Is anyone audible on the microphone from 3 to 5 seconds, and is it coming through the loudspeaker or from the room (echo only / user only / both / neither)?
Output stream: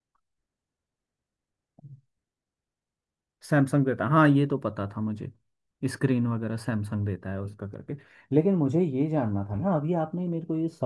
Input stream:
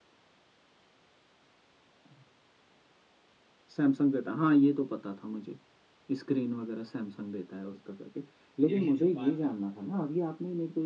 echo only